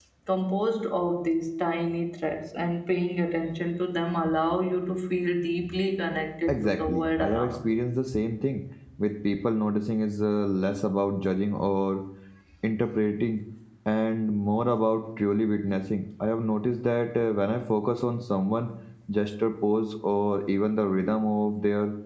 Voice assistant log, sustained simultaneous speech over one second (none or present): present